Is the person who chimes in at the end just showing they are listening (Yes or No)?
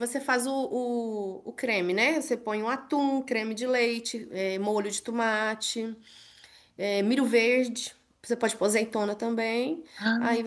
Yes